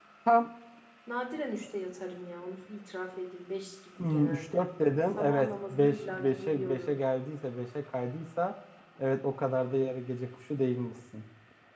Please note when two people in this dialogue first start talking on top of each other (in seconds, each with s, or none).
4.0 s